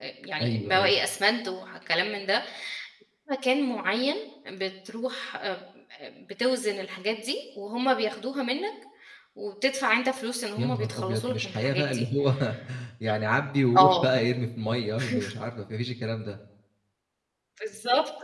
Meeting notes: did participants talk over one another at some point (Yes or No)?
Yes